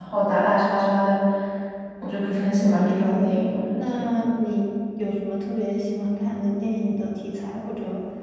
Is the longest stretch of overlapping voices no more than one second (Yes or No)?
No